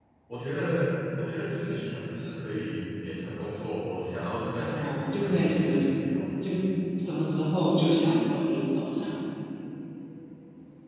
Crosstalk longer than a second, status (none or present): present